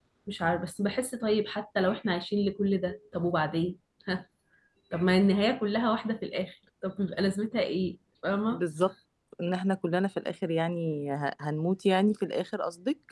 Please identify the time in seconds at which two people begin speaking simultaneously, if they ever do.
none

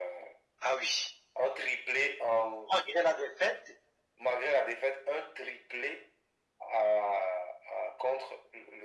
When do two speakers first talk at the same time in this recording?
none

